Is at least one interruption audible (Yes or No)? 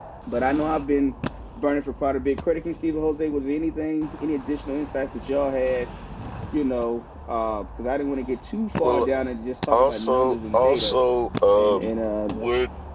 Yes